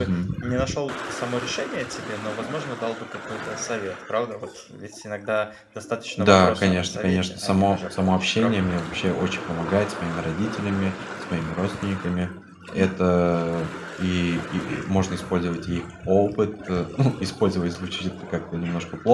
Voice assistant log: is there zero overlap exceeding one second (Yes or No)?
No